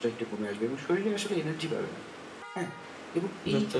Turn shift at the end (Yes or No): No